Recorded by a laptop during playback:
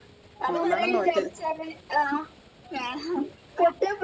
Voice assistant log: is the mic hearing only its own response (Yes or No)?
No